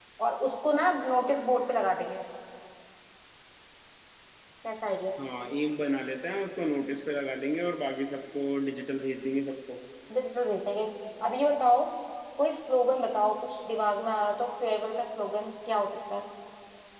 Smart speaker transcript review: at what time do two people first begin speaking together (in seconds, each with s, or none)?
none